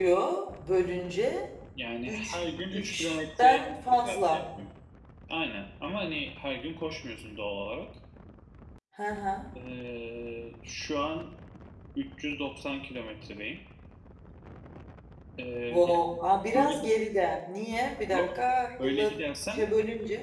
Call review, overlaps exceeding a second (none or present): present